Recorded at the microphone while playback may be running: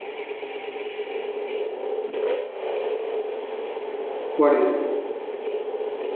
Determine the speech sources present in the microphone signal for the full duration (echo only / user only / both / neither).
user only